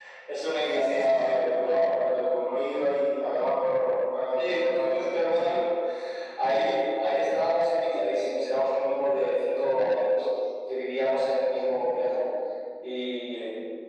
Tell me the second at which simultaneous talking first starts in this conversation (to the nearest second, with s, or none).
1 s